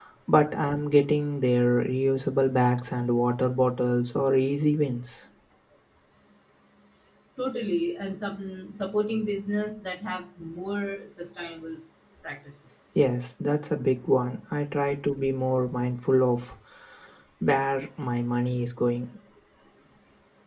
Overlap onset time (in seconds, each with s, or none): none